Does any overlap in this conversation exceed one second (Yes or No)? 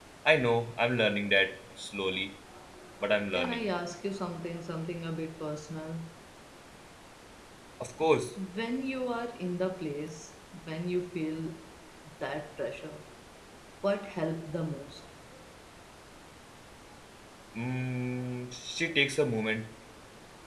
No